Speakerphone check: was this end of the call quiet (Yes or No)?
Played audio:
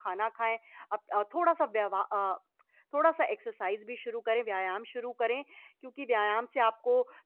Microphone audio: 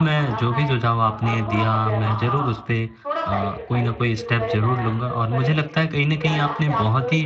No